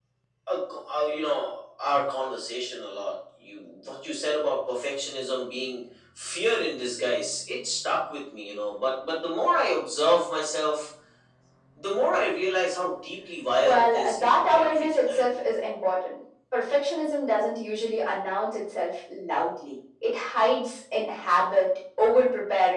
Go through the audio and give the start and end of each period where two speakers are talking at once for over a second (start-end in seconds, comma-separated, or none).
13.6-15.4